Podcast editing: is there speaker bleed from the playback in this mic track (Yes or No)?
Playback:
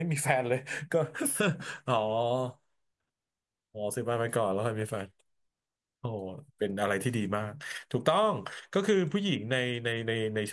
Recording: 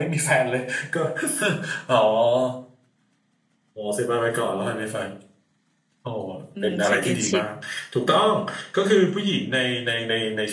Yes